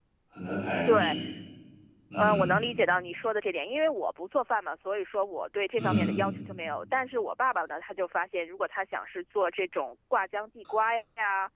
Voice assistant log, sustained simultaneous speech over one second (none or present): none